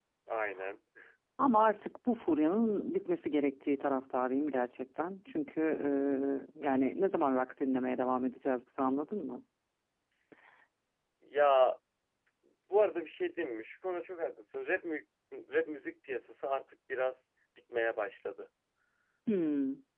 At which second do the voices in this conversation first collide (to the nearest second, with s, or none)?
none